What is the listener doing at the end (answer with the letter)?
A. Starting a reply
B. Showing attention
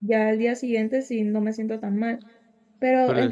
B